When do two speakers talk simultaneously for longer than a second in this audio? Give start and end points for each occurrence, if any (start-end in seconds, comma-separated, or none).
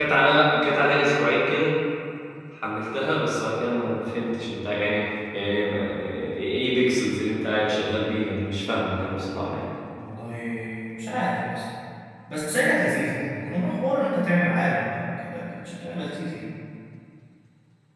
none